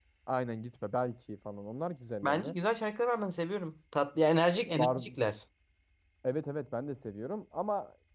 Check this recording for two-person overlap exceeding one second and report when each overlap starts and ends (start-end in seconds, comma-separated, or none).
none